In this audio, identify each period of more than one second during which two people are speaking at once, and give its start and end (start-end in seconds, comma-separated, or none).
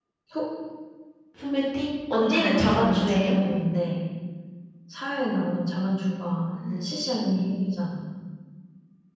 2.1-3.3